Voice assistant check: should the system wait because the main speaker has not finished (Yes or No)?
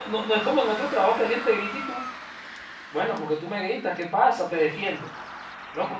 Yes